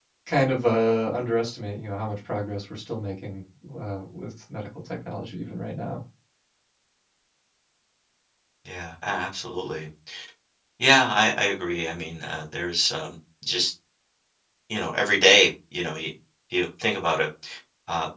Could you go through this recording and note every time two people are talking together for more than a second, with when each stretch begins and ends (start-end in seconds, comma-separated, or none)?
none